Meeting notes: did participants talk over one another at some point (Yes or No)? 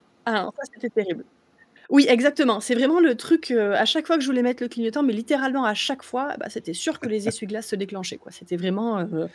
No